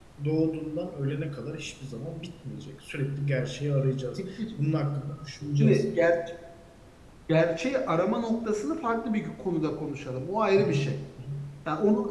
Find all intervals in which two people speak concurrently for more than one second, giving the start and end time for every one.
none

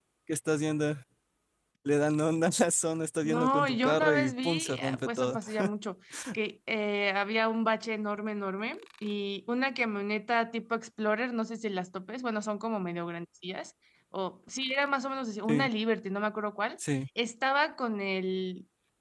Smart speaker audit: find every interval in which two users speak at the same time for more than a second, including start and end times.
3.2-5.4

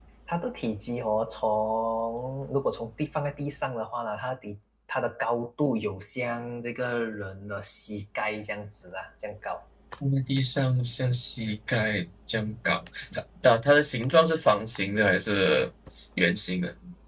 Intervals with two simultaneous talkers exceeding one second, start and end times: none

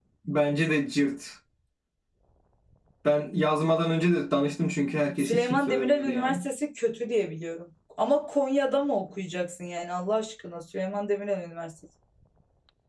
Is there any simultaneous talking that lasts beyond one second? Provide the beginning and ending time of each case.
5.2-6.4

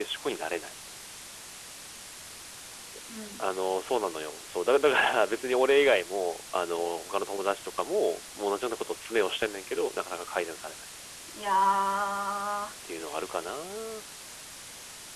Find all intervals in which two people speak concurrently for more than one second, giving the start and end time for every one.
none

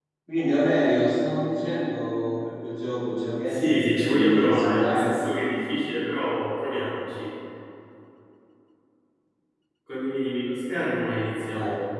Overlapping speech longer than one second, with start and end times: 3.5-5.2

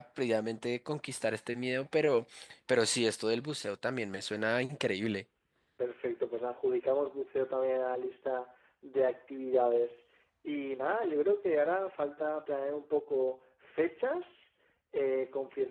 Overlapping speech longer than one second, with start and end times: none

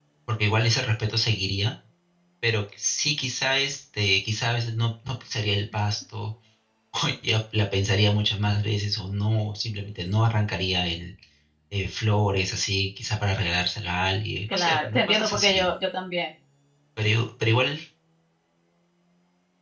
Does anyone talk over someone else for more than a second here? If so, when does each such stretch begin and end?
14.5-15.7

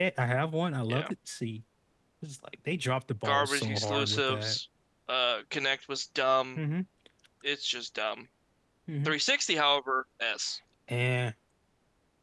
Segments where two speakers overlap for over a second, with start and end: 3.2-4.6

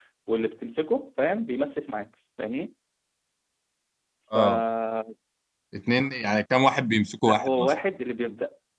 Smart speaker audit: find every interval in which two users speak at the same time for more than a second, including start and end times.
none

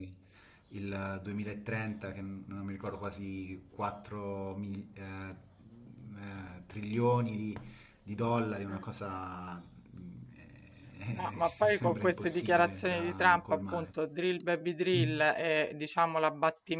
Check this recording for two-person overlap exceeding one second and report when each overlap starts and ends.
11.1-13.9

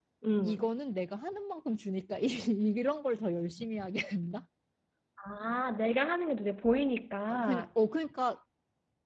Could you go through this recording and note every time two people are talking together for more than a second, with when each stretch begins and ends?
none

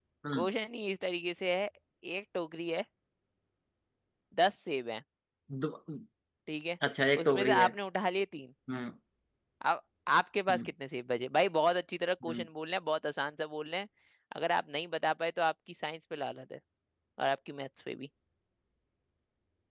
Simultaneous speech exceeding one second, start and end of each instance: none

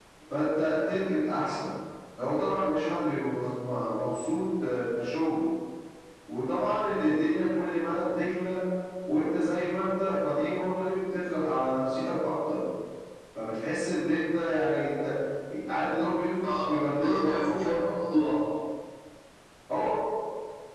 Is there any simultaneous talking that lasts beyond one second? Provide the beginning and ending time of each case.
16.4-17.8

